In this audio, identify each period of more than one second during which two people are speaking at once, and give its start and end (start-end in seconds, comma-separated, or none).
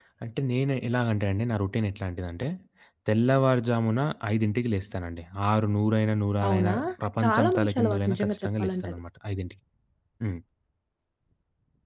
7.2-9.0